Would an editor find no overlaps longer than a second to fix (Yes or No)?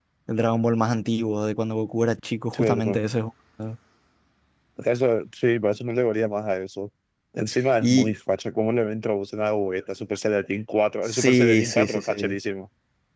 No